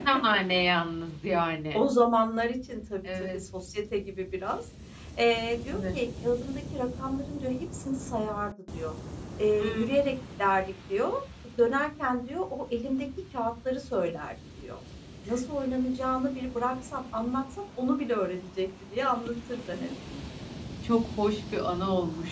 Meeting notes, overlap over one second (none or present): none